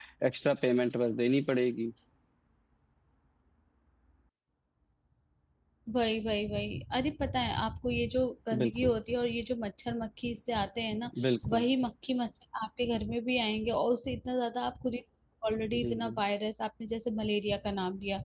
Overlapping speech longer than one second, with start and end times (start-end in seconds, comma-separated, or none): none